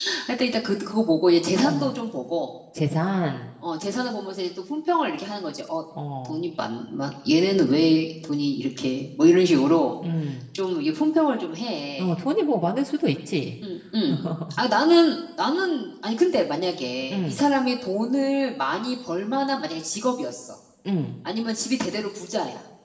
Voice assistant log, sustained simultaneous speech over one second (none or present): none